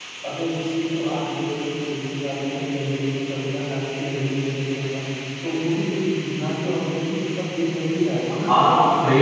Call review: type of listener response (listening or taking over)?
taking over